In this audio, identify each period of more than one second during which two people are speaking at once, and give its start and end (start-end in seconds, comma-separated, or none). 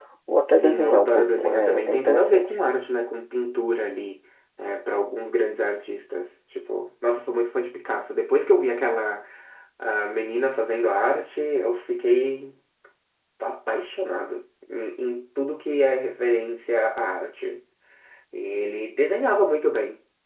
0.6-2.5